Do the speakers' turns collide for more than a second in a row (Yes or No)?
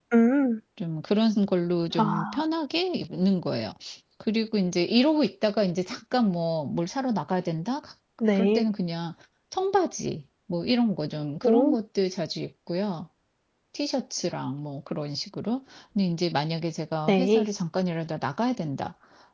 No